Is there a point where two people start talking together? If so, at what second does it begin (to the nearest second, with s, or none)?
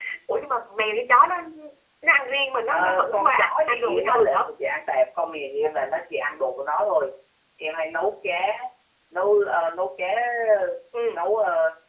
3 s